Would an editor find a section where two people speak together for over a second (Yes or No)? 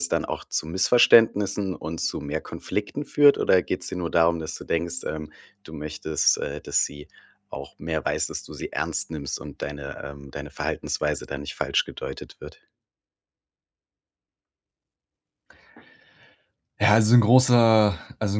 No